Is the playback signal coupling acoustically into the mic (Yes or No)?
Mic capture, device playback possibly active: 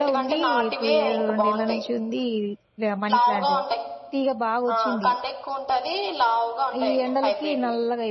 Yes